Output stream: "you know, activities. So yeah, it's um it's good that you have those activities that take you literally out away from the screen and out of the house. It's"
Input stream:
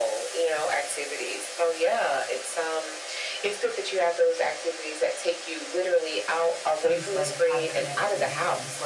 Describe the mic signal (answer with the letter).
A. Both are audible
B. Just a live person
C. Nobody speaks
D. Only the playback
A